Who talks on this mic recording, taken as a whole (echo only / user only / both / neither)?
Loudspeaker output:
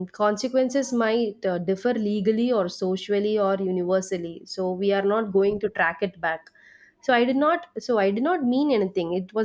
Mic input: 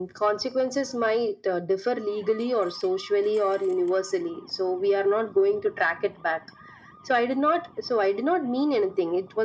echo only